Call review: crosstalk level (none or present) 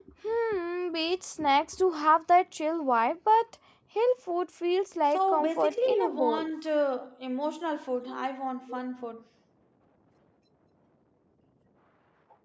present